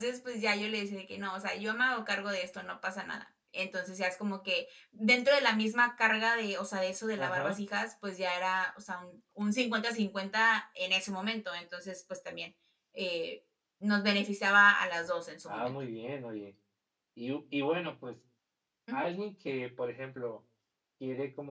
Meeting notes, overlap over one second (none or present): none